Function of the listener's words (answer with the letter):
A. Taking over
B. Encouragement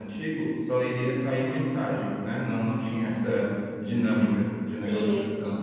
A